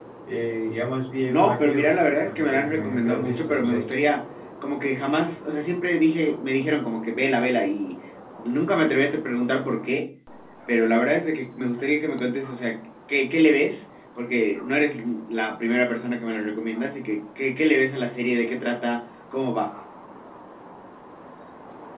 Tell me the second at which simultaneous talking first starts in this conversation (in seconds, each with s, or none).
1.3 s